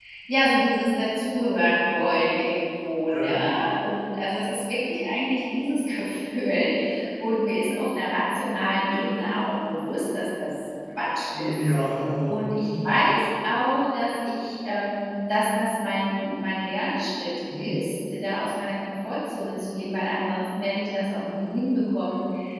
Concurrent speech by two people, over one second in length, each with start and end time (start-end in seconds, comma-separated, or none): none